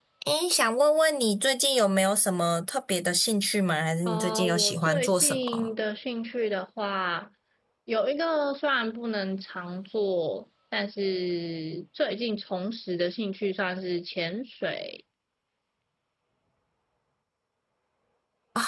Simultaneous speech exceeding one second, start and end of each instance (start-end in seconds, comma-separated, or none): 4.1-5.7